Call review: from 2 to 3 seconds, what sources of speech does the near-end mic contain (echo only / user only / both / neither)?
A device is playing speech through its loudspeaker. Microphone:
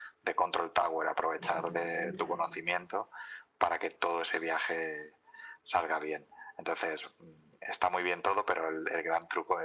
both